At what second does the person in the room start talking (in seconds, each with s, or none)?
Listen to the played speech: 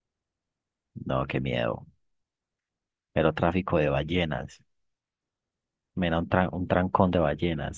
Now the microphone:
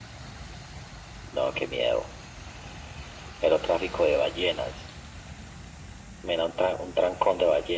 none